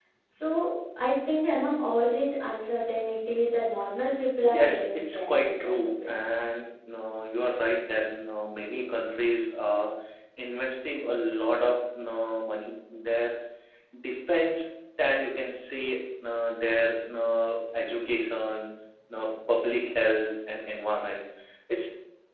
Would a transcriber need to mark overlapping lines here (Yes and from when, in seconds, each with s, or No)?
Yes, from 4.5 s